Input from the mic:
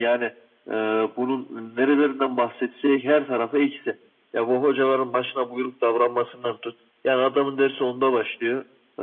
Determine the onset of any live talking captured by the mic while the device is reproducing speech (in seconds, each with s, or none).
none